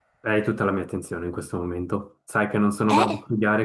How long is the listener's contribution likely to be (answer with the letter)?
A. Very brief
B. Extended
A